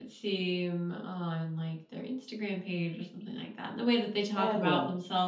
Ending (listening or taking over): listening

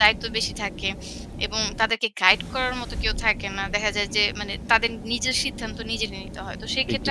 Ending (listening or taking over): listening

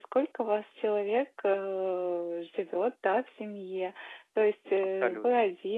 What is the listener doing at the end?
listening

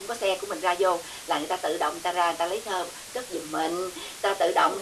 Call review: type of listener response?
listening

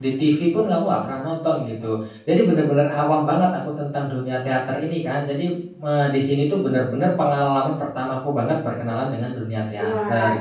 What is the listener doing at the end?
taking over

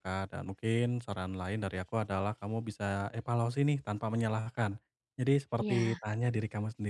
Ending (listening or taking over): listening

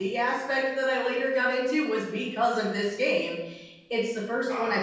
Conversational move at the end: listening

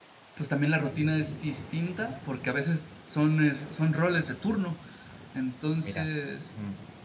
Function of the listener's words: listening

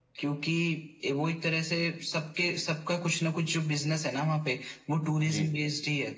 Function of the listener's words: listening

